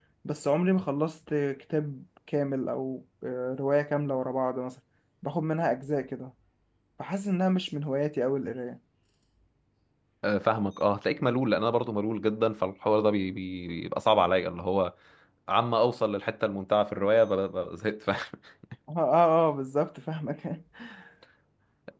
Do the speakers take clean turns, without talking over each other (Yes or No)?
Yes